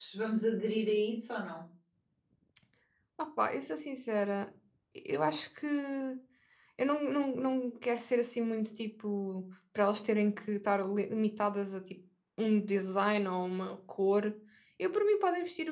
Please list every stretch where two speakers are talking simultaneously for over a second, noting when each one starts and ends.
none

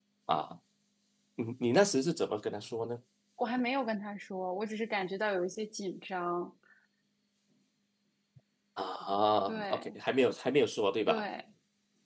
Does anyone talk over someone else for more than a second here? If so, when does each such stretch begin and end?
none

